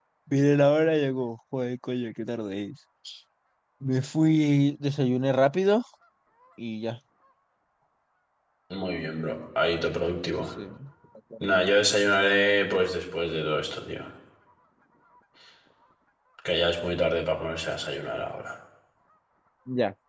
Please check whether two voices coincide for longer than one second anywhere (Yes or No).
No